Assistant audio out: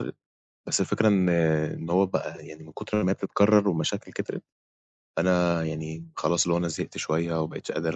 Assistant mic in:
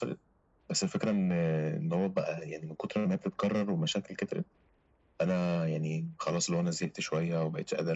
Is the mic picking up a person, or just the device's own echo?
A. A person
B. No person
B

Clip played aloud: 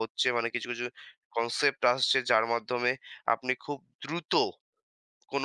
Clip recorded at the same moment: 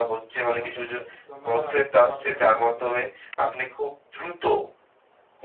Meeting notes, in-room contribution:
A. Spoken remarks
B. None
A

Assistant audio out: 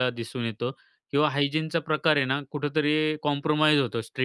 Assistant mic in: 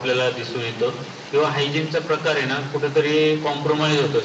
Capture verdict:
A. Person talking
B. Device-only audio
B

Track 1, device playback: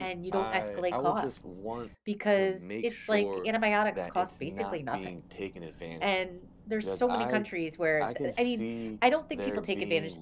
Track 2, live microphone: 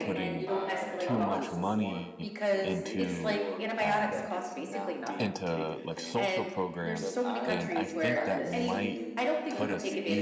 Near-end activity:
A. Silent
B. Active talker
B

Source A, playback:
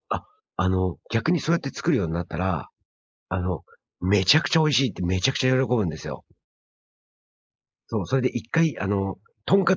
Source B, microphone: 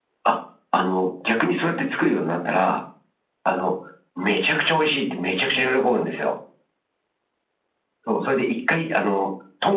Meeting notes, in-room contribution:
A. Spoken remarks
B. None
B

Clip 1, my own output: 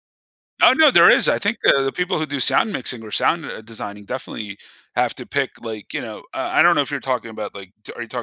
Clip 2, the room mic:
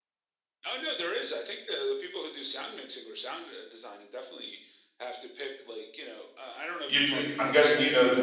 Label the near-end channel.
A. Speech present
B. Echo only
A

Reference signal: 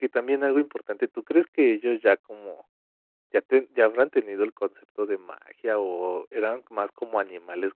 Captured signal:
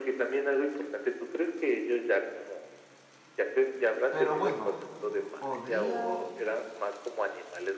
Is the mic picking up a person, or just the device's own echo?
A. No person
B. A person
B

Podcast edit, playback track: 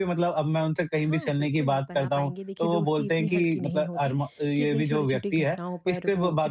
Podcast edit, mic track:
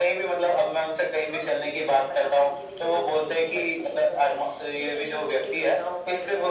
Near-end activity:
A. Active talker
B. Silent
B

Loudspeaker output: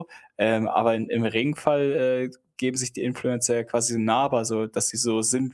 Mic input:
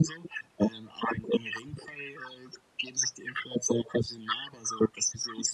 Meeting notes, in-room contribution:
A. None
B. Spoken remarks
A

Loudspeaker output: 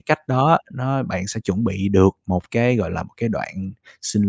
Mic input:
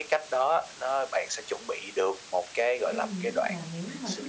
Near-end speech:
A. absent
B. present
B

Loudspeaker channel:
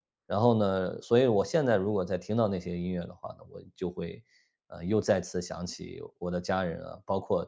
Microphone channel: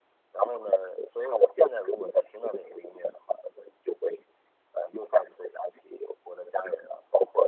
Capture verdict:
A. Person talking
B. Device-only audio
B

